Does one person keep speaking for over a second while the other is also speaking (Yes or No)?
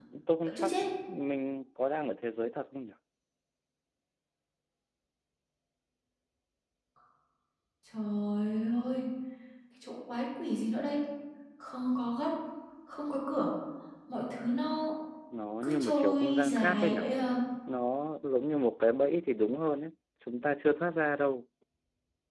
Yes